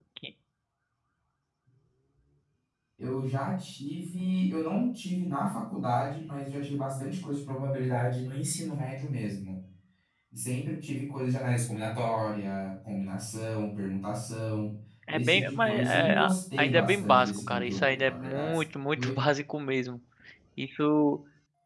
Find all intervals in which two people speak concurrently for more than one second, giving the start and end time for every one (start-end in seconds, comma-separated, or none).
15.1-18.6